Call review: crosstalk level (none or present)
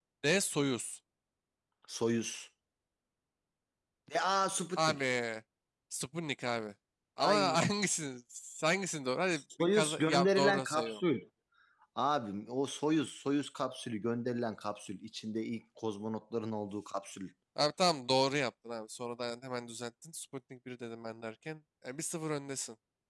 present